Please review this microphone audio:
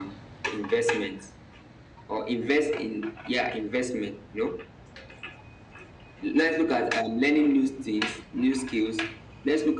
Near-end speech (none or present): none